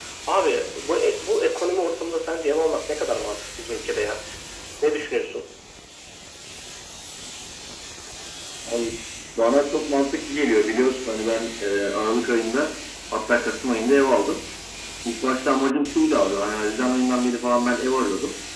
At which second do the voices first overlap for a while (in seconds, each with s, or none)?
none